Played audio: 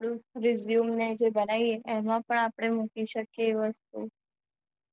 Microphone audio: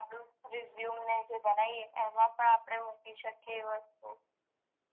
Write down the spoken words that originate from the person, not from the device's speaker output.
none

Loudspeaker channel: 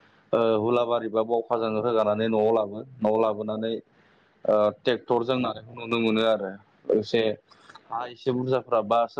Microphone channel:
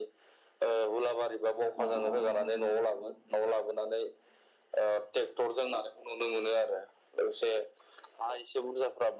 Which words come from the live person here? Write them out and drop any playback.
औ औ

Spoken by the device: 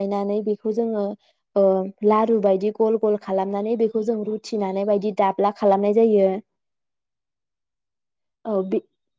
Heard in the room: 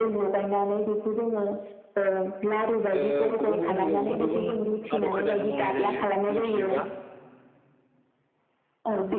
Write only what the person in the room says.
ओ गुबुन गुबुन जायगायाव गुबुन गुबुन आदब खायदाजों मावनाय जायो मिनथिजोबा।

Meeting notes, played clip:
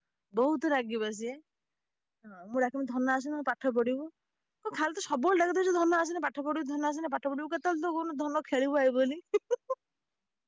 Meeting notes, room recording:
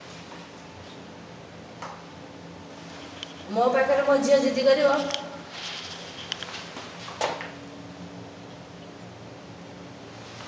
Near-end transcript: ମୋ ପାଖରେ ମୋ ଝିଅ ଜିଦି କରିବ

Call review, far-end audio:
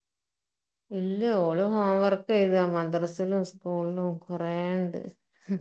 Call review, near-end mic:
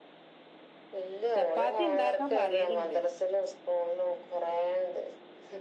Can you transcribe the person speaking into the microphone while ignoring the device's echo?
ചപ്പാത്തി ഇണ്ടാക്കാ പറയല്ണ്ട്

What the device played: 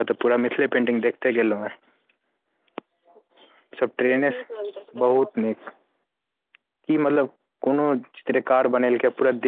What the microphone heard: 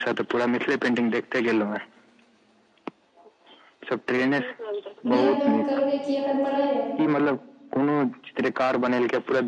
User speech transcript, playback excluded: बिआ दान करबै की एखन पढ़ैय यै

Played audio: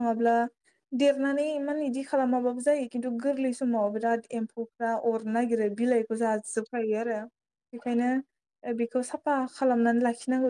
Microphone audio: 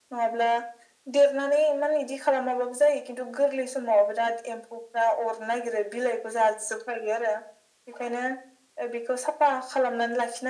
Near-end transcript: none

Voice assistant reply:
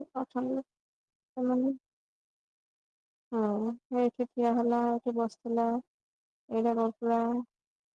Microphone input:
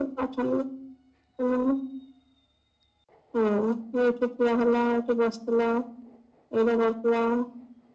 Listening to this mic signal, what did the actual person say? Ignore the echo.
none

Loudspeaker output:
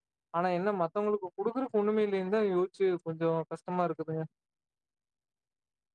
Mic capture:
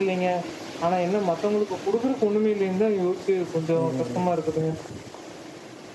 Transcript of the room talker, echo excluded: ம், ம், ம்.

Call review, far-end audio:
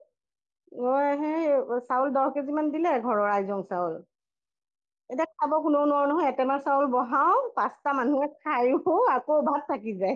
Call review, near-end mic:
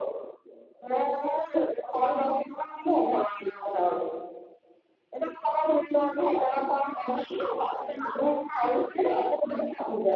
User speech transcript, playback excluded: none

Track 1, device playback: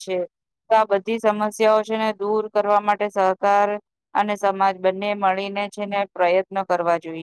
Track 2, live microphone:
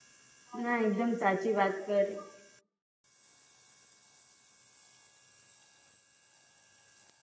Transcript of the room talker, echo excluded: ના એકદમ સાચી વાત કરી.

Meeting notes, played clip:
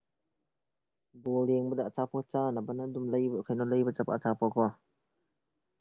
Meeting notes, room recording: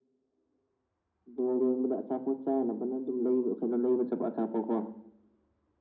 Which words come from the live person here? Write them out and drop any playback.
none

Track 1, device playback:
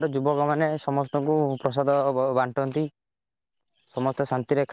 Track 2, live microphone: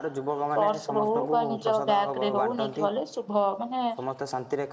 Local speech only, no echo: ପର୍ସ ହଉ ବା ନିଜ ବ୍ୟାଗରେ ହଉ ନେଇକି ଗଲେ ଶୁଭ ମାନେ

